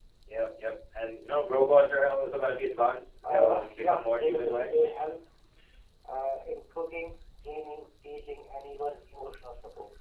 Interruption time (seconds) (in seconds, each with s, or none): 3.2 s